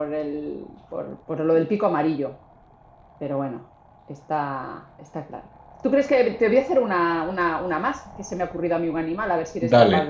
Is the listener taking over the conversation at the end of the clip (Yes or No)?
No